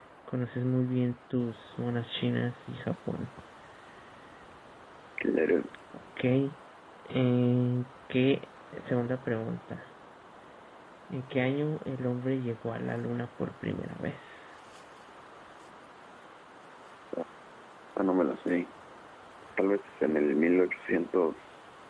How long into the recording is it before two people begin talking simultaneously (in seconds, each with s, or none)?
none